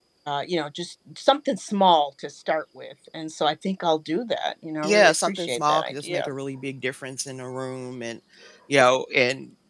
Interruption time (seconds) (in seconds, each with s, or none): 4.8 s